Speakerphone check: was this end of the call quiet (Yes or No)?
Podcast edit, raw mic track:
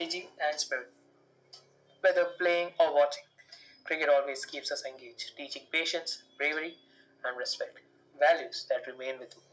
Yes